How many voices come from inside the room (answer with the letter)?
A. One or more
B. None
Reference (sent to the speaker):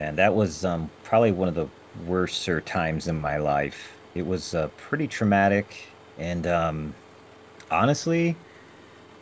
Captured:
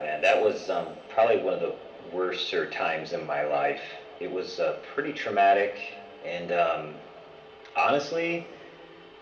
B